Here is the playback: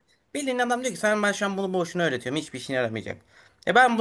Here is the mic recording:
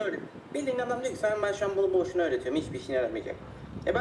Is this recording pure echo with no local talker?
Yes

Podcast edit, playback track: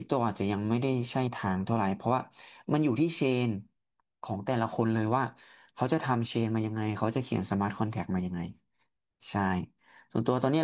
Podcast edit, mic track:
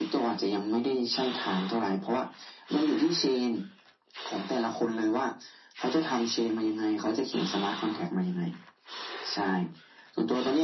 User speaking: No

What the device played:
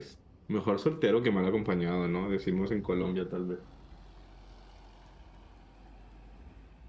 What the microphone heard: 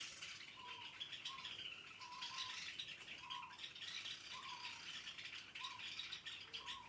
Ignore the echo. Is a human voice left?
No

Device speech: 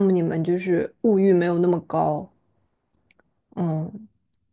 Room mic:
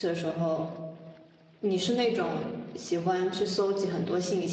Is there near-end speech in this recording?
Yes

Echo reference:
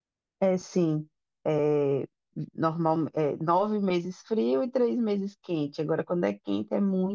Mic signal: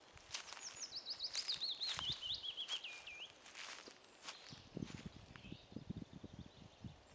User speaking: No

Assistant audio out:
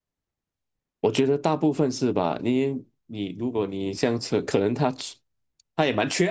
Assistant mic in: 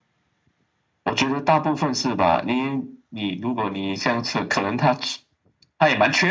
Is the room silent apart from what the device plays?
Yes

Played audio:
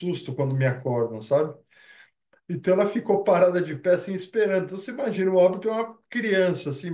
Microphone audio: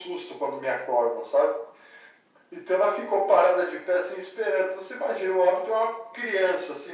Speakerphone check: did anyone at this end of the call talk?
No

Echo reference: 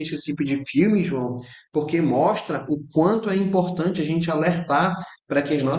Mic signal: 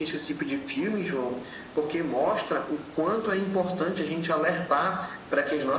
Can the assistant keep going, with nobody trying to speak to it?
Yes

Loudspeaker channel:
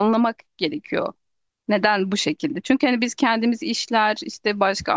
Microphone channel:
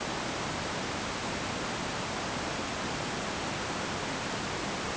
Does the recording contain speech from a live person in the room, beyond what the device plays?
No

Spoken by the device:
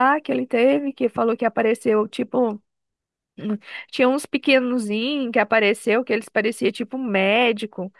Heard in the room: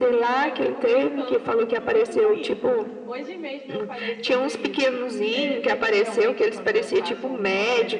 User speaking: Yes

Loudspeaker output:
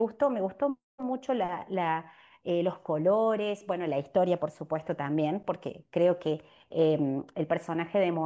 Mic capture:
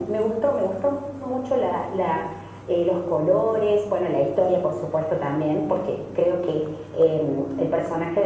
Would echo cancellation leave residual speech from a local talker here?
No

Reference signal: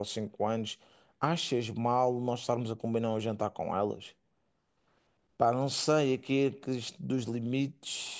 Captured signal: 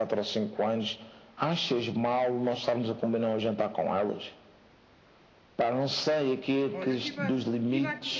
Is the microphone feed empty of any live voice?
No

